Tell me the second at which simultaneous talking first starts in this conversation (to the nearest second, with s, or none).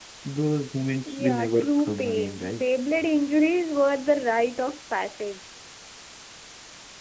1 s